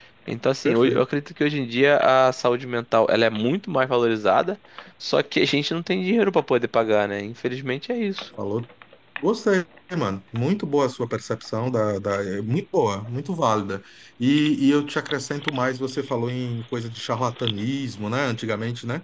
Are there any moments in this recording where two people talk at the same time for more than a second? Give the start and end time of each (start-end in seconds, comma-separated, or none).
none